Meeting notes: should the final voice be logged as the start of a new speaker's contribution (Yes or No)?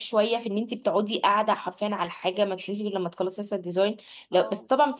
No